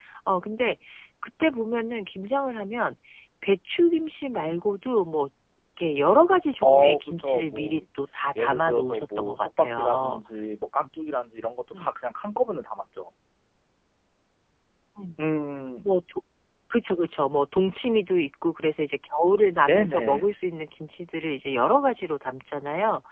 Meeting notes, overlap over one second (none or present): present